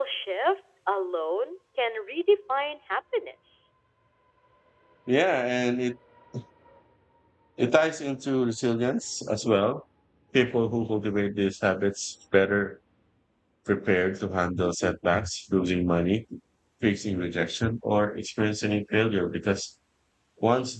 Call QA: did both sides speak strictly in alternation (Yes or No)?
Yes